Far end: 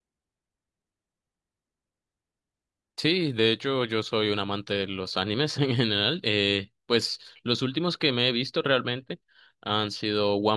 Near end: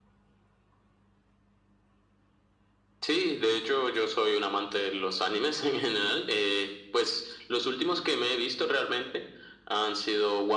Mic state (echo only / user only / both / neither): echo only